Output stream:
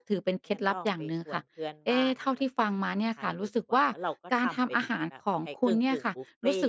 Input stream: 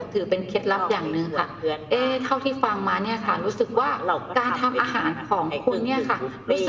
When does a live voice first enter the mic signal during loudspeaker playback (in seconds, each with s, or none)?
none